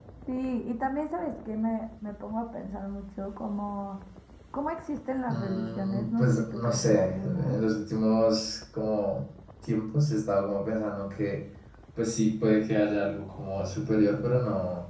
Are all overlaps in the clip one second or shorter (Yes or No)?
No